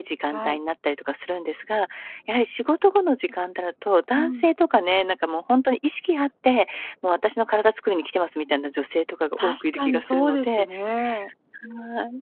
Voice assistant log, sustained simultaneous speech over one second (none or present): present